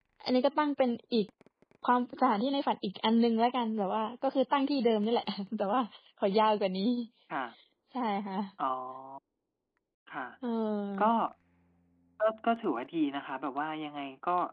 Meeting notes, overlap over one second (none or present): none